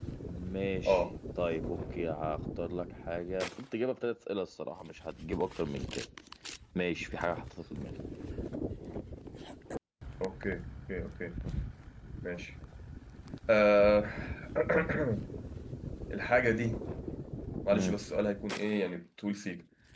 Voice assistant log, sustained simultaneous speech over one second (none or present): none